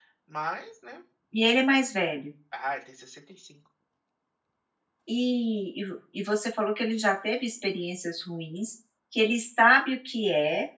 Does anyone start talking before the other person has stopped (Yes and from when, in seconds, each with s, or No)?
No